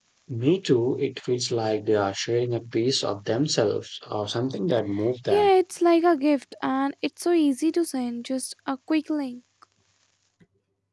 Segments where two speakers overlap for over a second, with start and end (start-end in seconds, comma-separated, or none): none